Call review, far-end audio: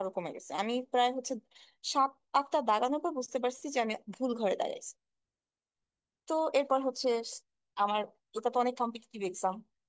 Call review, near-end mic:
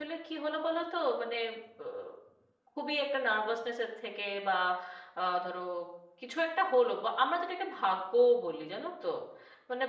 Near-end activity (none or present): present